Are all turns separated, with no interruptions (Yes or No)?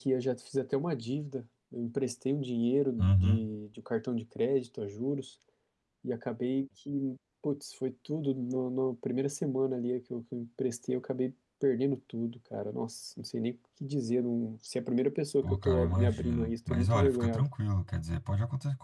No